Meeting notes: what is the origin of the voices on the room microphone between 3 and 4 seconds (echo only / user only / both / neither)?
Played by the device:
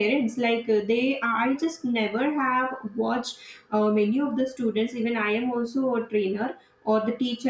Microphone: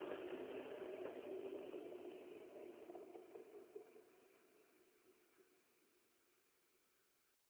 neither